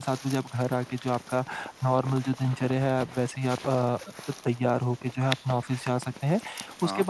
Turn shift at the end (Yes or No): No